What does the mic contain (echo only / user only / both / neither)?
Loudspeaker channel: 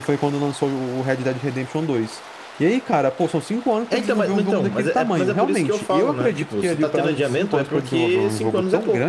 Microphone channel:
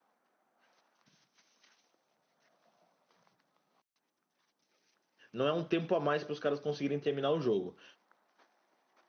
user only